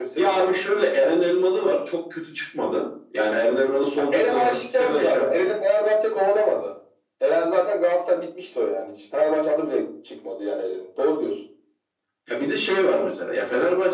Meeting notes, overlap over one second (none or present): present